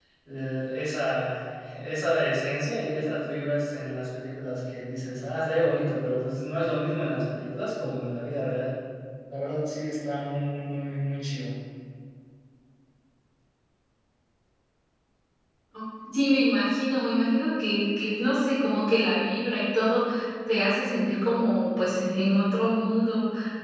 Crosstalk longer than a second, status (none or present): none